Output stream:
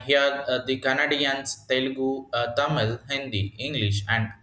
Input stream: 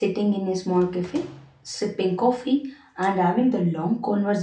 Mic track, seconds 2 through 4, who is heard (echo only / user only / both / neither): user only